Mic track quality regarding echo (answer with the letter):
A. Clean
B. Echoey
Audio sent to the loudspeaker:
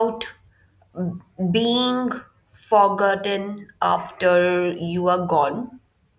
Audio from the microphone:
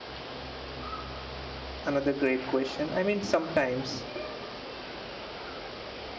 A